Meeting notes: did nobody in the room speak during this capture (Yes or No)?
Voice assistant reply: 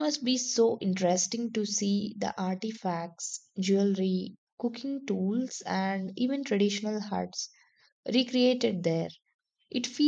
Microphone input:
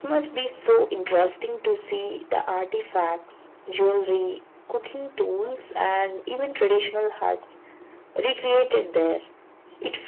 Yes